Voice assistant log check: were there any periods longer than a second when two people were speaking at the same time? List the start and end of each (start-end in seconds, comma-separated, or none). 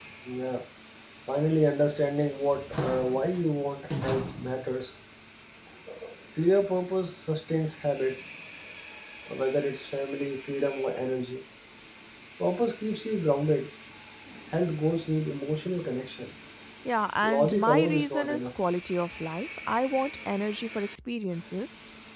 17.2-18.5